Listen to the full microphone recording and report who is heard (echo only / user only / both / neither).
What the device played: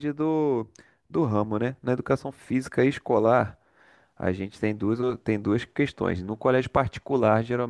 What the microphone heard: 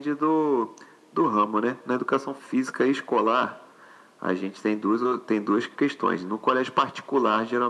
echo only